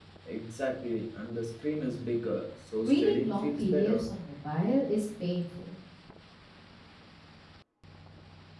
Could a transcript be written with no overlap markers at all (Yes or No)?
No